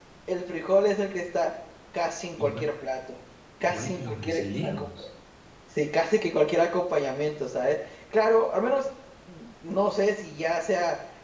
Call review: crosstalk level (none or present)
present